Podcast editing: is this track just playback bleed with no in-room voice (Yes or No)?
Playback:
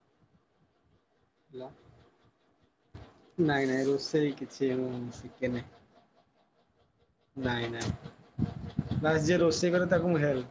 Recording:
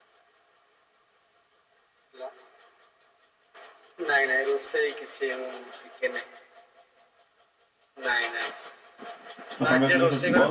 No